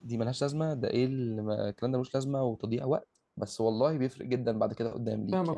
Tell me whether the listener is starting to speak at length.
Yes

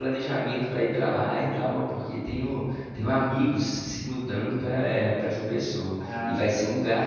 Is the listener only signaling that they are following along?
Yes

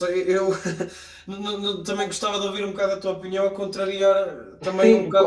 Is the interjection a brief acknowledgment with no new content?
No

